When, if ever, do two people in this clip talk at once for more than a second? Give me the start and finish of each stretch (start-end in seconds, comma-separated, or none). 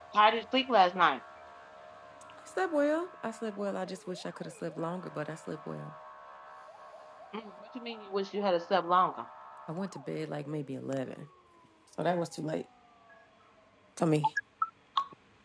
none